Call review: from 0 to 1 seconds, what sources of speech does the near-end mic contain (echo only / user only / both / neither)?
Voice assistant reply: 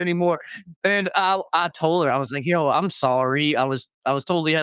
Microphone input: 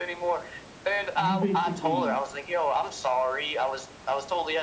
echo only